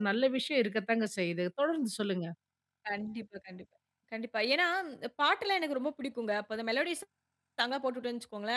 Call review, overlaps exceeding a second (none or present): none